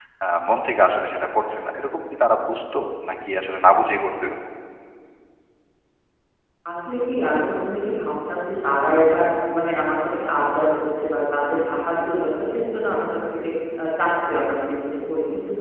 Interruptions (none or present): none